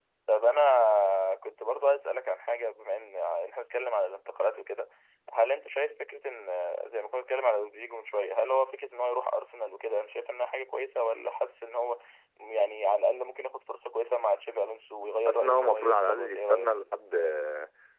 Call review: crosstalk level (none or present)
present